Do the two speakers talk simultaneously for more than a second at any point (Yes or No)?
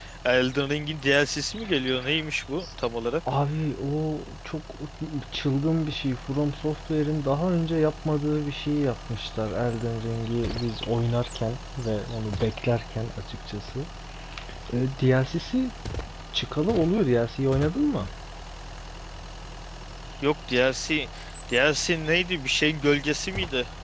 No